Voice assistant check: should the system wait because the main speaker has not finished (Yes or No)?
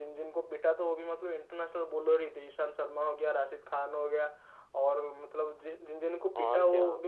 Yes